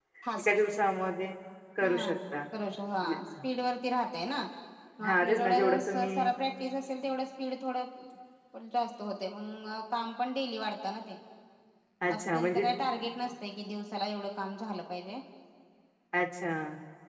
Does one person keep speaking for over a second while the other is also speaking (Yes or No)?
Yes